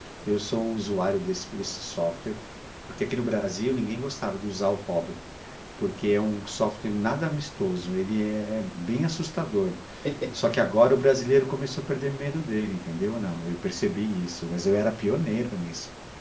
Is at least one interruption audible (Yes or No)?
No